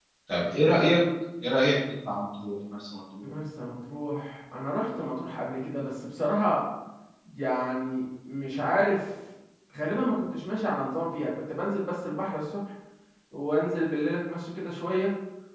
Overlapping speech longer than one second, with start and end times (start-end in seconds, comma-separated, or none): none